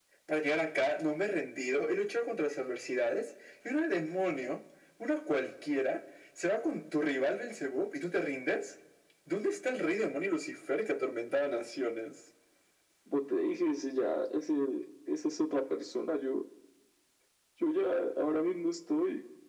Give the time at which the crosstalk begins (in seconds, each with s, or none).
none